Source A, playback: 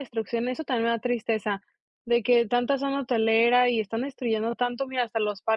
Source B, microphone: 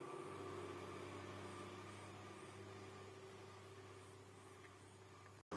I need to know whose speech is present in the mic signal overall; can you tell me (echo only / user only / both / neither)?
neither